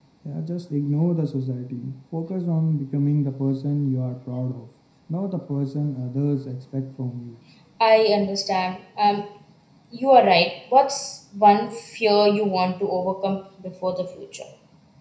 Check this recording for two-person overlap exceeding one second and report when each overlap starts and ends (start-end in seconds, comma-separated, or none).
none